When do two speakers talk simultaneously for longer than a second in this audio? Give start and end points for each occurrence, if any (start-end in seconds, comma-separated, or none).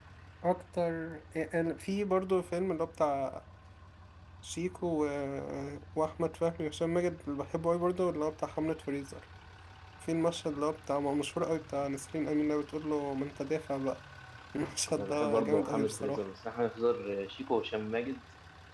14.9-16.2